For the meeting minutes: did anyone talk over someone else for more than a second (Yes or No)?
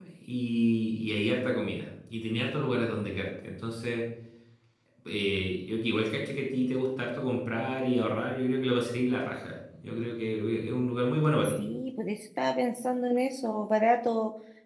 No